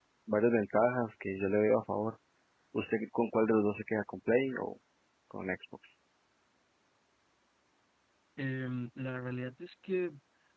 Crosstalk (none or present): none